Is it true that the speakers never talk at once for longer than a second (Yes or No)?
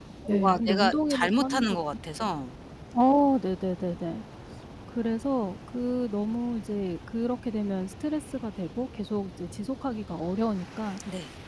No